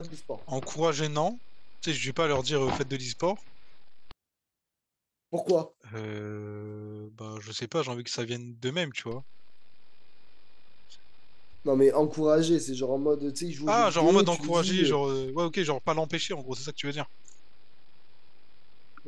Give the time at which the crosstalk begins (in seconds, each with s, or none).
13.7 s